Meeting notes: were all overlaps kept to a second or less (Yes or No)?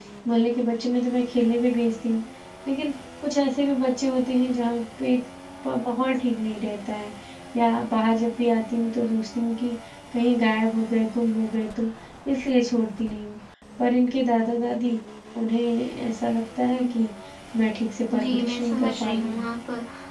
No